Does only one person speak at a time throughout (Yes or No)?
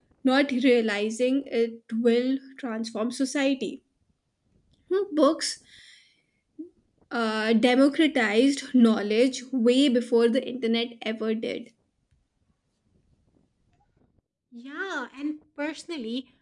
Yes